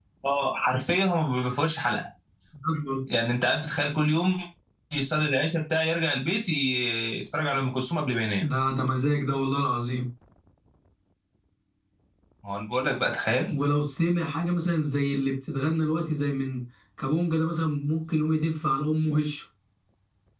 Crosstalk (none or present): none